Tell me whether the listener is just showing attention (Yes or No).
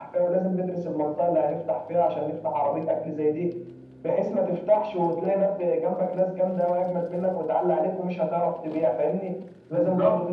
Yes